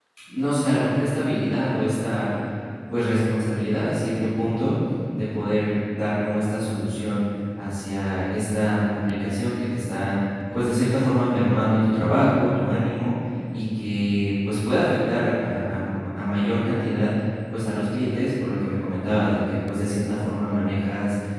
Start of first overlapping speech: none

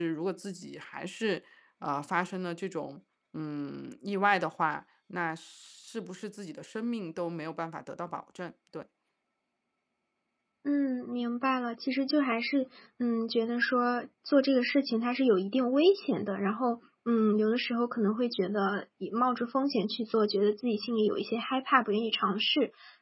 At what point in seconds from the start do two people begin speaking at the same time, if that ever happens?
none

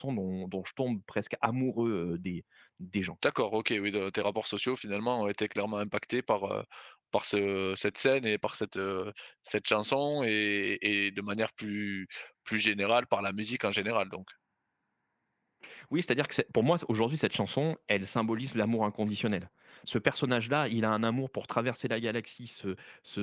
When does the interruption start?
none

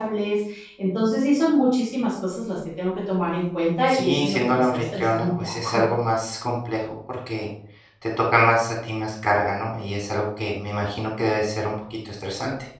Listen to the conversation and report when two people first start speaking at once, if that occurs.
4 s

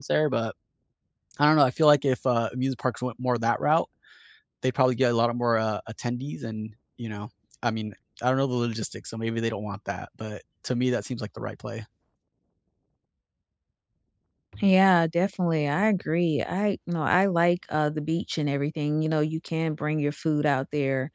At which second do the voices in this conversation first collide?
none

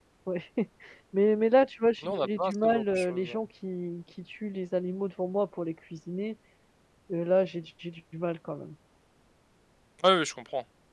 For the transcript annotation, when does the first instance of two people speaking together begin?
2 s

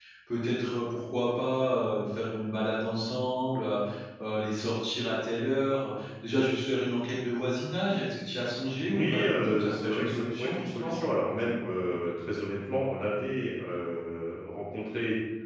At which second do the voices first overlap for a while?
9 s

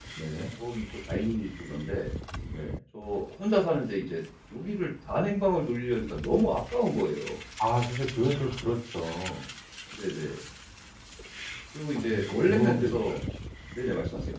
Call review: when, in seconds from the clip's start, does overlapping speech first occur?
12 s

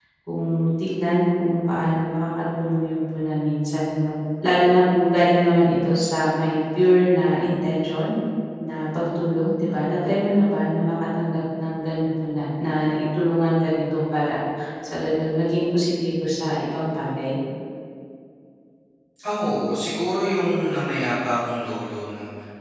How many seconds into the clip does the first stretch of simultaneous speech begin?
none

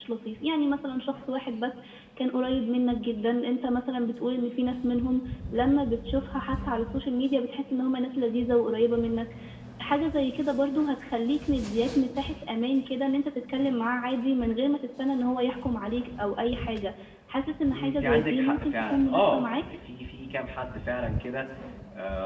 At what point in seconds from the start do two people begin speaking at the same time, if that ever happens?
18 s

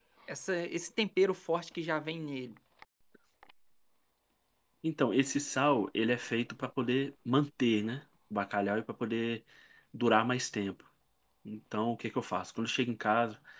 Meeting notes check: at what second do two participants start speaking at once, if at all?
none

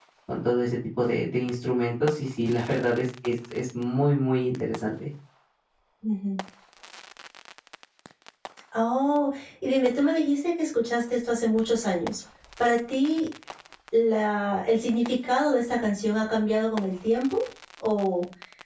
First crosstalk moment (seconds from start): none

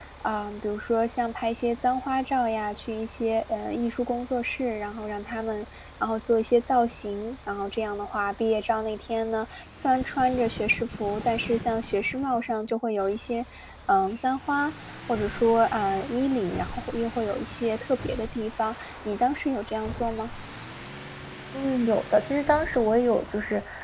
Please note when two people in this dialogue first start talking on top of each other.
none

